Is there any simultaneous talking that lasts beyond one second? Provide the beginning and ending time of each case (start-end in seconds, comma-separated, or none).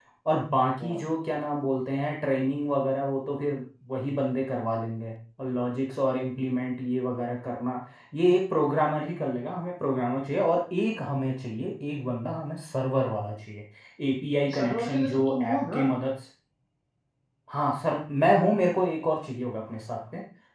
14.6-15.8